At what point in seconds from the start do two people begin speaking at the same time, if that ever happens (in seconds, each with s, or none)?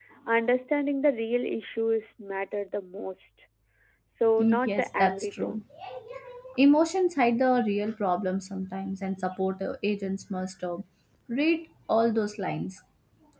4.4 s